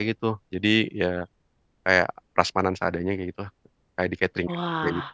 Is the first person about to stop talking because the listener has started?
Yes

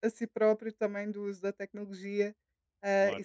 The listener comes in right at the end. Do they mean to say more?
No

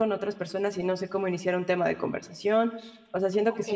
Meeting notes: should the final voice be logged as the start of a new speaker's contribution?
No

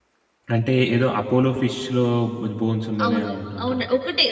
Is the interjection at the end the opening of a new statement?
Yes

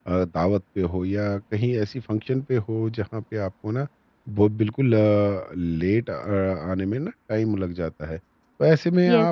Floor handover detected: No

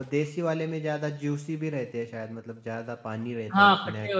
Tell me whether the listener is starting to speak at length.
Yes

